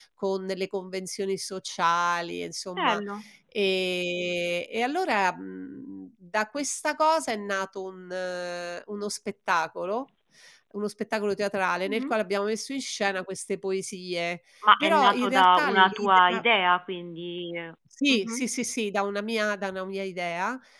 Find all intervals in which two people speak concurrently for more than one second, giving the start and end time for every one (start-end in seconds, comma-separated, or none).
14.8-16.4